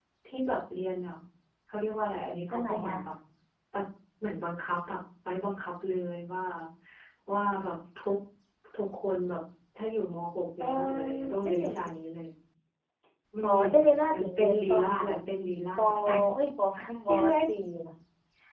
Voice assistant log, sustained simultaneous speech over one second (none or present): present